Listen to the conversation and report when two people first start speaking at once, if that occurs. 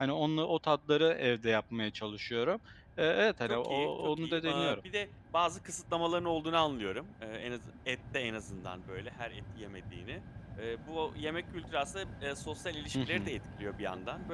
3.5 s

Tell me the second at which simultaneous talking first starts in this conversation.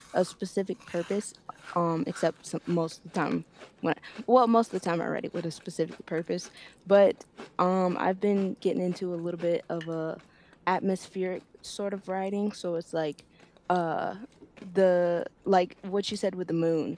none

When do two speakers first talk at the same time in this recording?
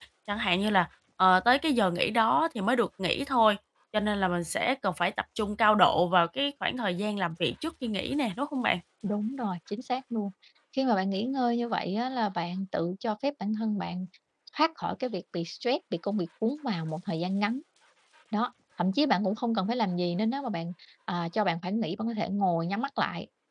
none

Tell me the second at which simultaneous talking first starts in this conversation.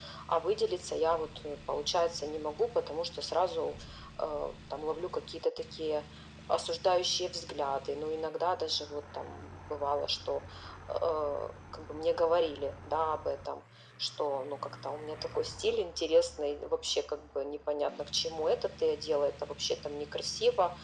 none

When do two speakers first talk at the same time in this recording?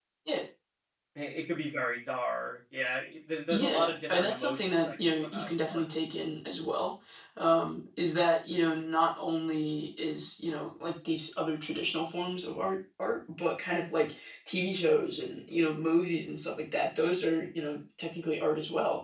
3.5 s

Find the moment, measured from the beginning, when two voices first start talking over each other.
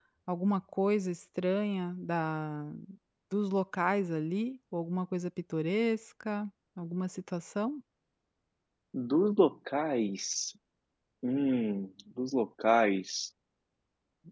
none

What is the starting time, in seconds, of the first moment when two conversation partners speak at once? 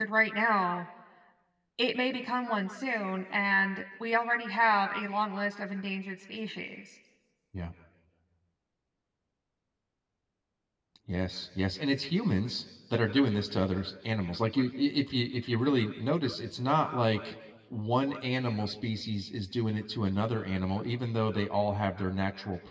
none

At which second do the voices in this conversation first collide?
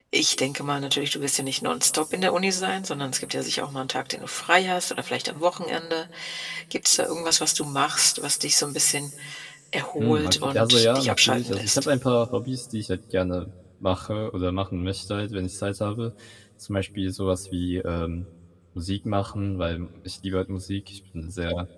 10.0 s

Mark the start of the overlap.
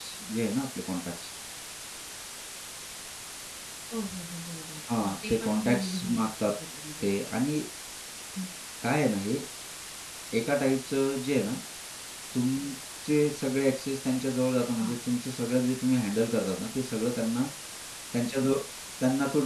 4.9 s

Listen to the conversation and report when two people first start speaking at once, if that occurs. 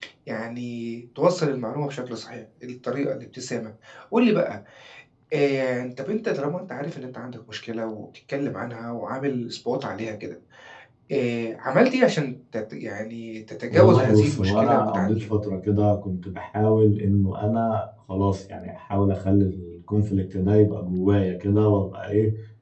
13.7 s

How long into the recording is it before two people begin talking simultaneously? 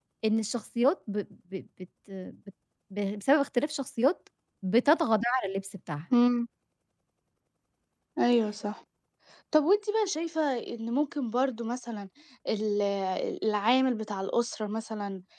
none

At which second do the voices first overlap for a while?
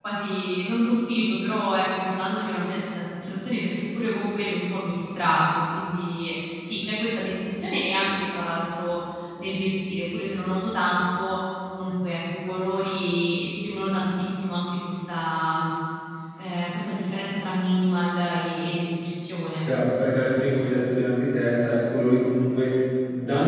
none

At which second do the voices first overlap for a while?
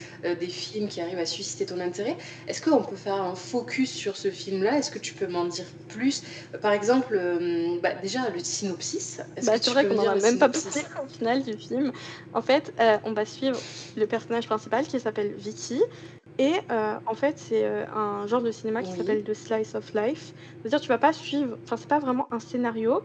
9.4 s

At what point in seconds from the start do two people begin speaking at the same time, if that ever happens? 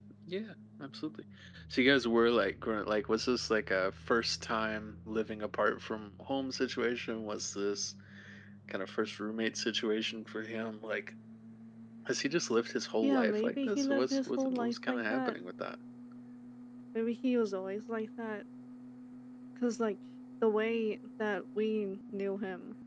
13.0 s

